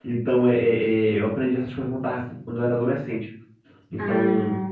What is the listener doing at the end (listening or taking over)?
listening